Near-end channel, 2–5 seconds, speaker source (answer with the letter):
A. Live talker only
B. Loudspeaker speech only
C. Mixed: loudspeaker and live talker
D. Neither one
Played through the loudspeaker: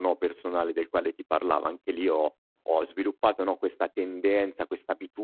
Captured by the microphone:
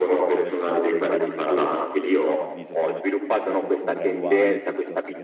C